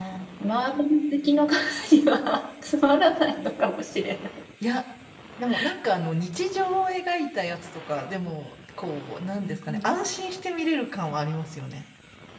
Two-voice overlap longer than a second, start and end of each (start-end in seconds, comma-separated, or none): none